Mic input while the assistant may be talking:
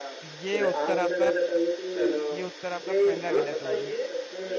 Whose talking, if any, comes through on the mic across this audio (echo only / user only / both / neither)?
both